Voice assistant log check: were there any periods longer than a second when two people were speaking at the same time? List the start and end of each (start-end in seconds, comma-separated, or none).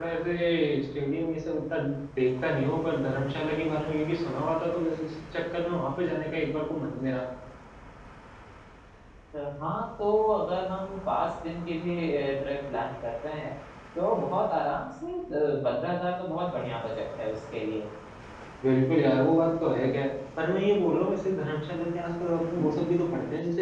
none